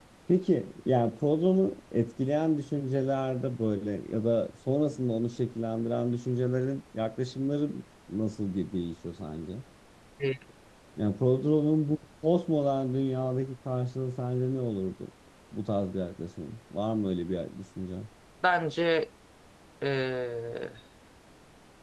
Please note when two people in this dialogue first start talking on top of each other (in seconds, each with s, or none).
none